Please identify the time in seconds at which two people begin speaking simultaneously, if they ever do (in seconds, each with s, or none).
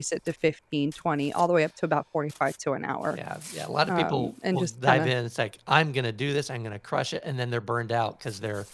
3.9 s